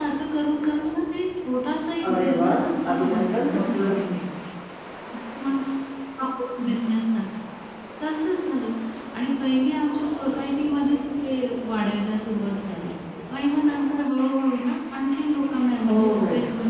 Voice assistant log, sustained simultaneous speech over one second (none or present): present